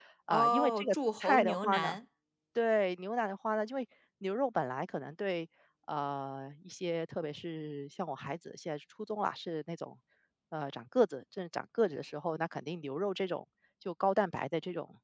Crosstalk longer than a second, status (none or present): present